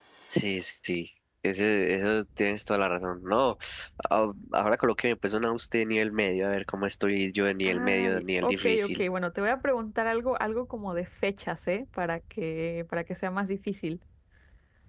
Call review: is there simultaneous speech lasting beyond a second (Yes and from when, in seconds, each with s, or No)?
Yes, from 7.6 s